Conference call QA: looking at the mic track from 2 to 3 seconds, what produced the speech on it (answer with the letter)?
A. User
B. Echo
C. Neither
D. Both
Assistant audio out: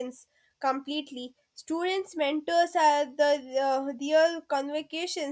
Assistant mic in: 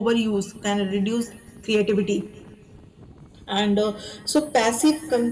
A